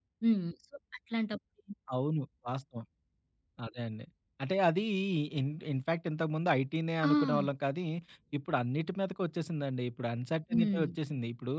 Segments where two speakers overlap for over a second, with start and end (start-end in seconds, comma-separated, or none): none